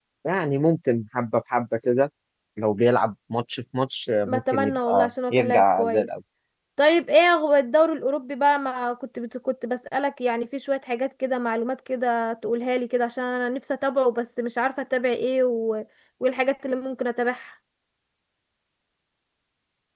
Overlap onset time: 4.2 s

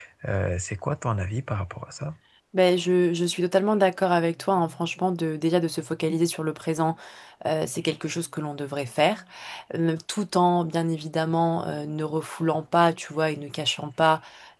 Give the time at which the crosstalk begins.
none

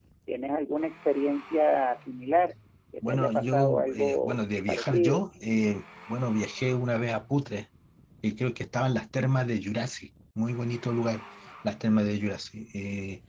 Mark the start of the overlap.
3.0 s

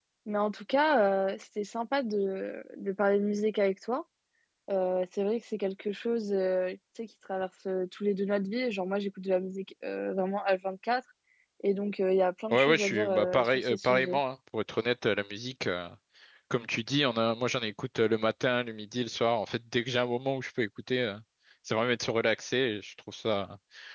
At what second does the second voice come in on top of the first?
12.5 s

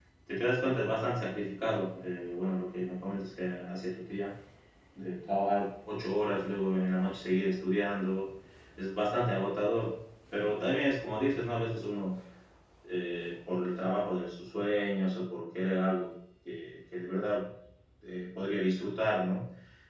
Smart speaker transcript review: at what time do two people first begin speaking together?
none

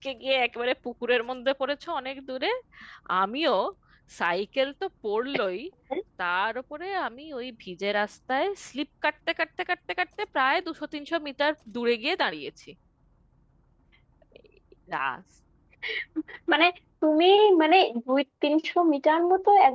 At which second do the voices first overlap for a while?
none

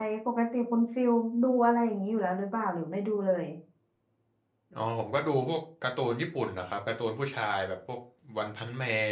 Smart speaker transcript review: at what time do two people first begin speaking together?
none

